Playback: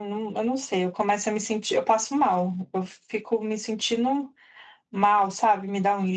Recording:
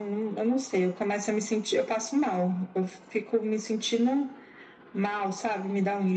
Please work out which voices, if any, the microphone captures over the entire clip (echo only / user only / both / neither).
echo only